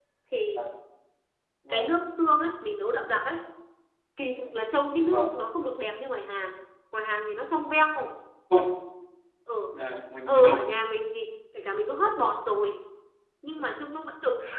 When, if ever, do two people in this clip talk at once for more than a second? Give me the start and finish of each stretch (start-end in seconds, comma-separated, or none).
none